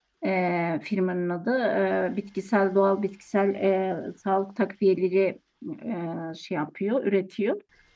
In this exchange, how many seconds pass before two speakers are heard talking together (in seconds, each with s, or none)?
none